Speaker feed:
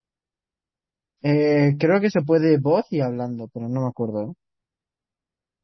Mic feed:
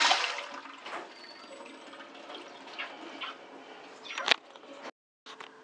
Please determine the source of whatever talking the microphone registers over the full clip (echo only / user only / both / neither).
neither